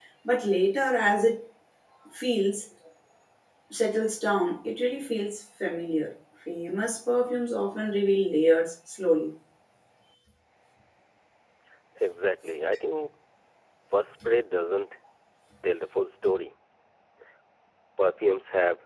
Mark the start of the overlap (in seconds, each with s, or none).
none